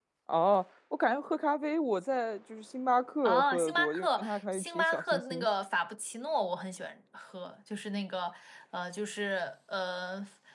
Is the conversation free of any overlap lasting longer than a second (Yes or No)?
No